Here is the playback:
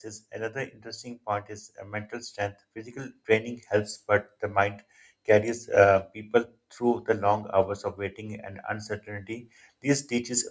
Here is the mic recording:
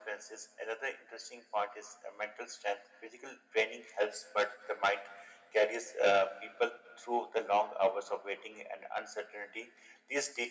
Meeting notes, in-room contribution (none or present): none